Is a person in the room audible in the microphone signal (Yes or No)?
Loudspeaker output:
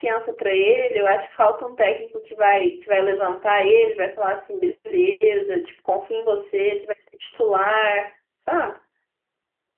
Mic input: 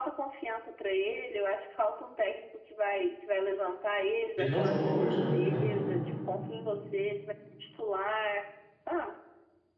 Yes